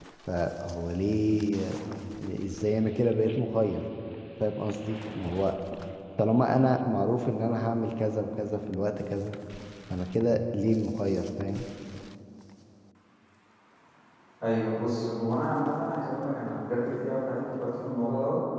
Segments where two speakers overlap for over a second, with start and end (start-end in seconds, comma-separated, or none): none